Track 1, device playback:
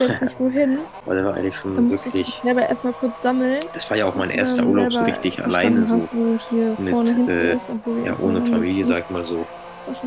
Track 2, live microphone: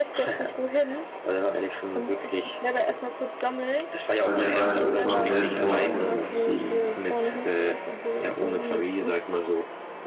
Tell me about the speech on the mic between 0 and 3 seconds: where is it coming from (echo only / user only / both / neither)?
echo only